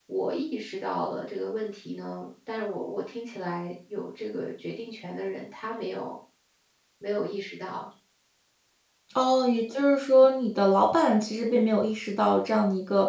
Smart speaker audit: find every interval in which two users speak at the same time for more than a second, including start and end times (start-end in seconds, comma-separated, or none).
none